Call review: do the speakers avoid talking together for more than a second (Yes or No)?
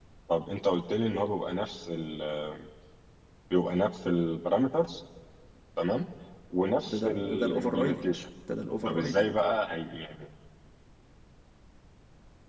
No